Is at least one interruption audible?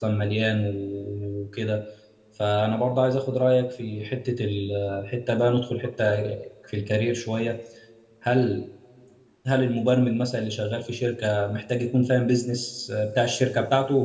No

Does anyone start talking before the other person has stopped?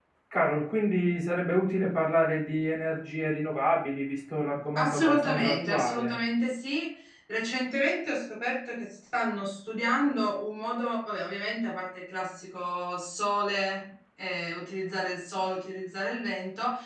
Yes, from 4.8 s

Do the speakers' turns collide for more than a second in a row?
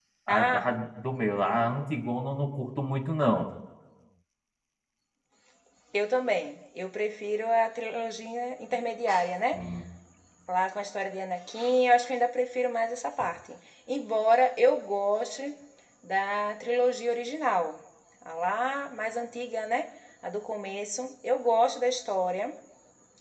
No

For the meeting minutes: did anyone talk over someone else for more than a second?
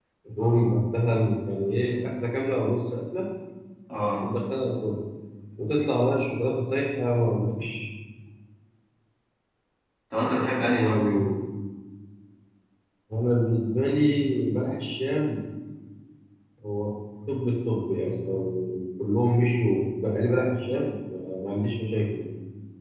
No

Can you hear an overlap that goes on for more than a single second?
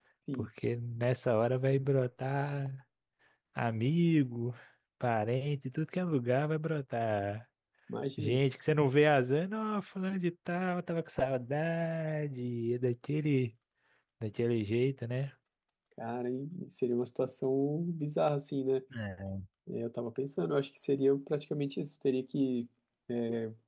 No

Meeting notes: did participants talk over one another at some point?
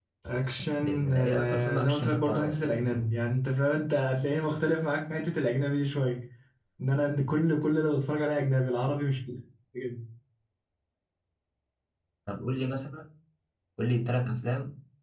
Yes, from 0.8 s

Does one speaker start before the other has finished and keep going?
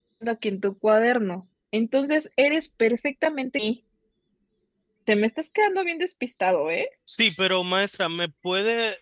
No

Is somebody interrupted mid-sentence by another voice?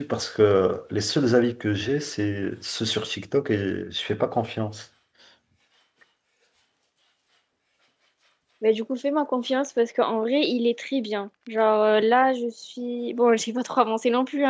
No

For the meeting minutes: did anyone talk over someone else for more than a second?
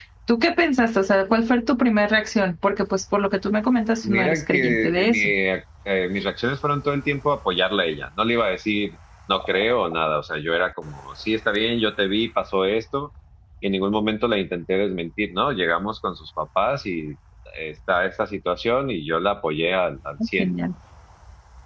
Yes, from 4.0 s

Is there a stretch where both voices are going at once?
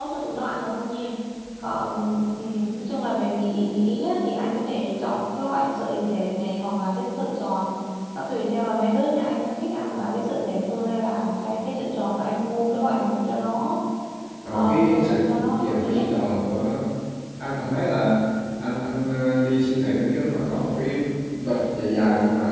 Yes, from 14.5 s

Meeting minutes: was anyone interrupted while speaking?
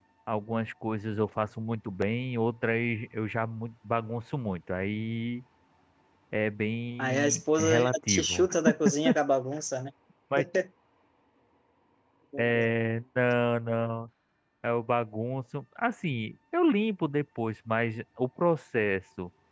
Yes, from 7.0 s

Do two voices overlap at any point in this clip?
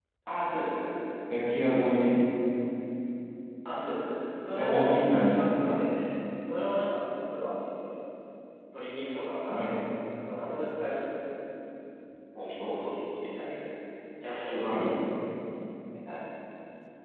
Yes, from 4.6 s

